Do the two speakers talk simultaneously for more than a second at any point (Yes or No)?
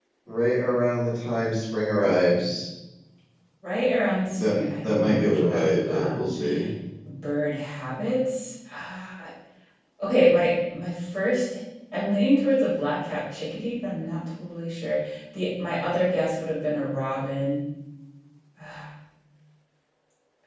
Yes